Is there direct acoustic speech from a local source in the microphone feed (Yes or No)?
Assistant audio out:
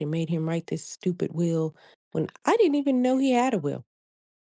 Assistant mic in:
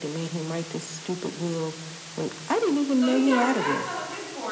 Yes